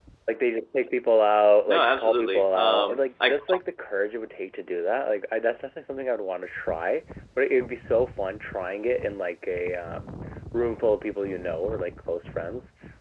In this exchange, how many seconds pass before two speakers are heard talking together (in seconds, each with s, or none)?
1.7 s